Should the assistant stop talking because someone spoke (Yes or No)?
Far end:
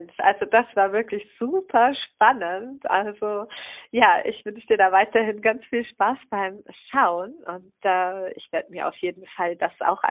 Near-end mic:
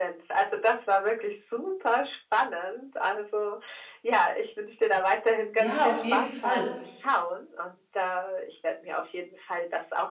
Yes